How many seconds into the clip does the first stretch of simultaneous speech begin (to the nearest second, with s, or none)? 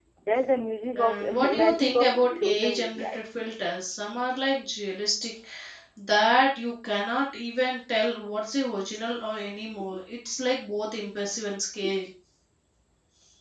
1 s